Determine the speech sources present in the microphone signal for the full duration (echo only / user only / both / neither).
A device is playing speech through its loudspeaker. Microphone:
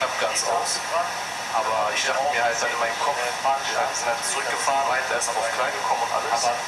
echo only